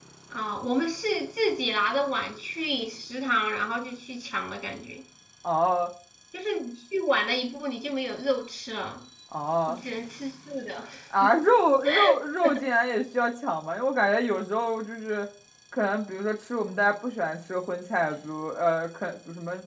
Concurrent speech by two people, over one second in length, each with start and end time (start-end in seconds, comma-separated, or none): none